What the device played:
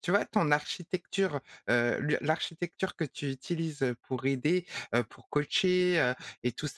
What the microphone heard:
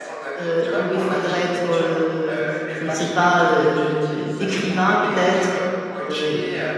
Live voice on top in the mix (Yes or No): Yes